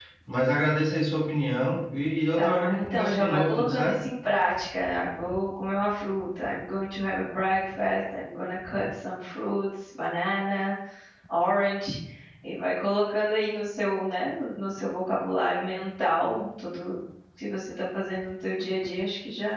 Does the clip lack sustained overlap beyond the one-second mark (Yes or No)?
No